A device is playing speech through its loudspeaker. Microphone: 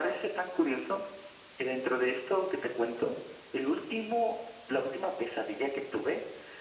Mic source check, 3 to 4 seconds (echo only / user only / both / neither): echo only